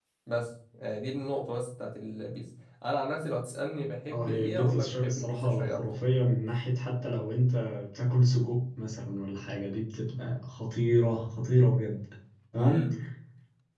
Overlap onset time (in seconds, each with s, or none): 4.1 s